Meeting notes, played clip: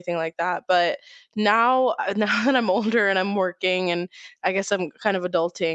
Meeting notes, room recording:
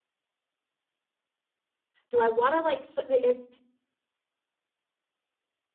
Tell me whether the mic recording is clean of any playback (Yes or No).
Yes